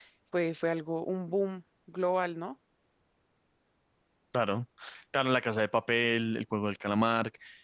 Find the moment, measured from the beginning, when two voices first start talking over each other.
none

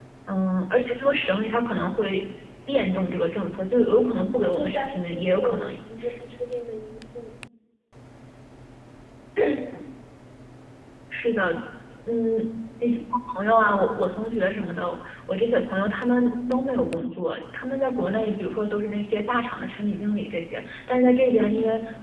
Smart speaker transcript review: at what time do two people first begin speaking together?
4 s

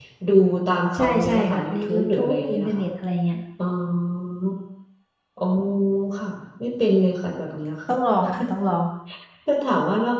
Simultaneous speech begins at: 1 s

